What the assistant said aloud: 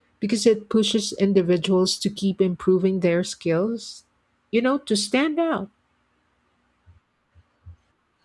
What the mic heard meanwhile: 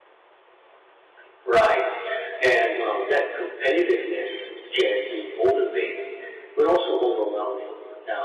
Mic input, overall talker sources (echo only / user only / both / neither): user only